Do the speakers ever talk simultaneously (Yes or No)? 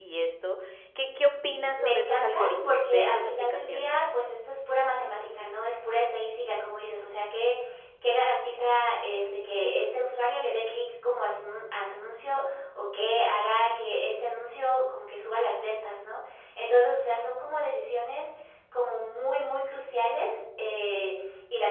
Yes